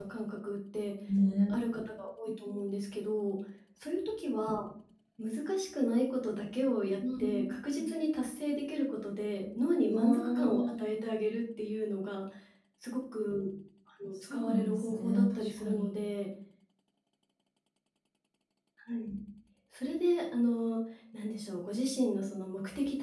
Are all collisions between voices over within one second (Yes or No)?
No